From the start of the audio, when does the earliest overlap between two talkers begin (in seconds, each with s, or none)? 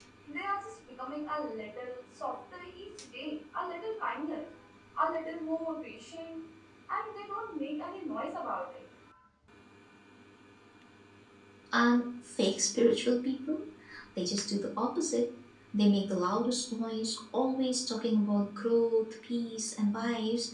none